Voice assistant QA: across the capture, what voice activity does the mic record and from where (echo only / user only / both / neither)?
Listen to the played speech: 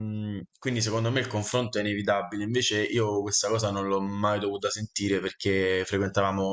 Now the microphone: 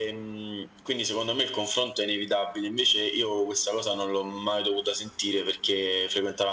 echo only